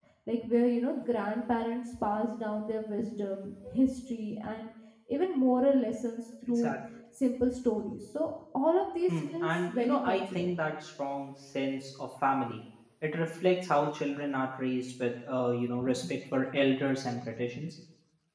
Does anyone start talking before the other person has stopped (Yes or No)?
Yes